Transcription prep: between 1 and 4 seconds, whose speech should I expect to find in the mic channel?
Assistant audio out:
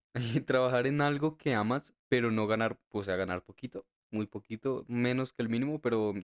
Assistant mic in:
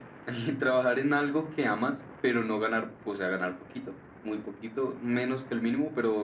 echo only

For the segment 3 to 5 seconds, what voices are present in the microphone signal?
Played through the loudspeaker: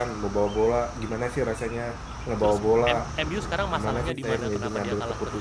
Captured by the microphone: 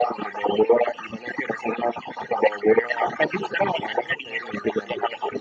echo only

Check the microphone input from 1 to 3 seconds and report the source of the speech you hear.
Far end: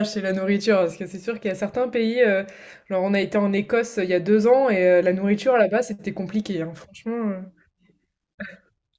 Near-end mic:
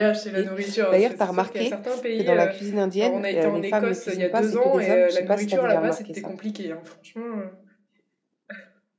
both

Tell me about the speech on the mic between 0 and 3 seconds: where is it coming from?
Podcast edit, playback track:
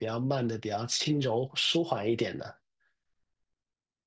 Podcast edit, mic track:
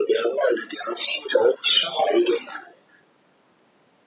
echo only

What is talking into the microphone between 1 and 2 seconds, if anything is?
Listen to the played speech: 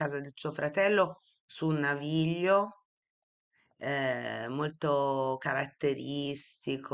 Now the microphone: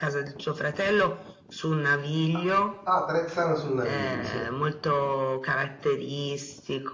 echo only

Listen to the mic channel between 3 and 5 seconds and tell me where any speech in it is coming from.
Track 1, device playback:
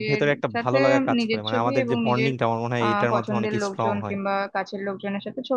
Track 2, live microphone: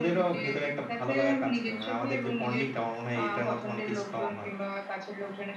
echo only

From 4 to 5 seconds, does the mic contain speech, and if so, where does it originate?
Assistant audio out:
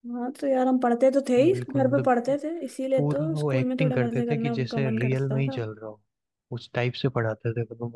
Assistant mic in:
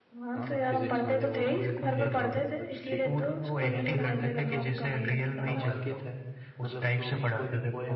both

